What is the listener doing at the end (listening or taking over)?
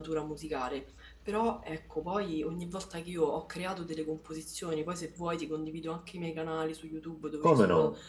listening